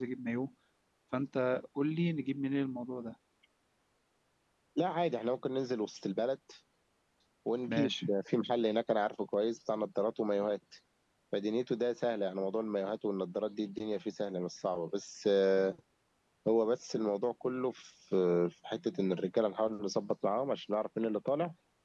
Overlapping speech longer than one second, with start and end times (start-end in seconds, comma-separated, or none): none